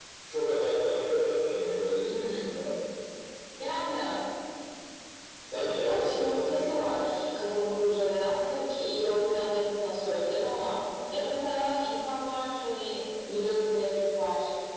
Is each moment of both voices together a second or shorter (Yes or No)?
No